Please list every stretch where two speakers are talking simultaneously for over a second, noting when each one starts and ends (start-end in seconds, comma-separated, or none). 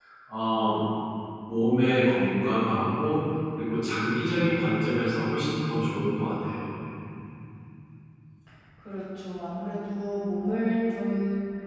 none